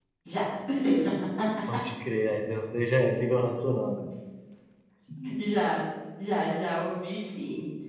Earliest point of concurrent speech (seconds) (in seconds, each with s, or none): none